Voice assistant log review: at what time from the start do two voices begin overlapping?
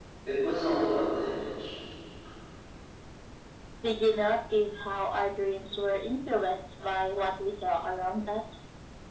none

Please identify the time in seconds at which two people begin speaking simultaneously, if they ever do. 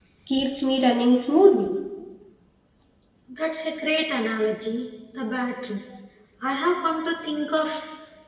none

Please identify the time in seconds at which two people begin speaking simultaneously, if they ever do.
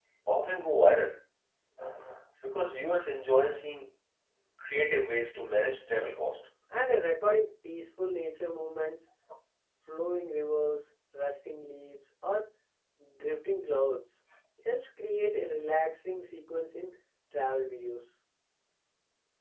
none

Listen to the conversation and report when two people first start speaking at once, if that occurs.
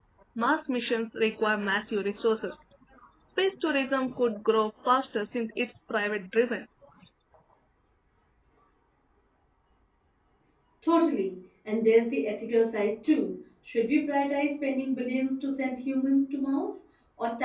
none

